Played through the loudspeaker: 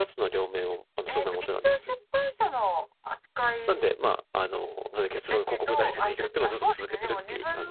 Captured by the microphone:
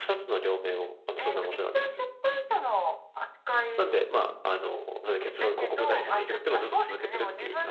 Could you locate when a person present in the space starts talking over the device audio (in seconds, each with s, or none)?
none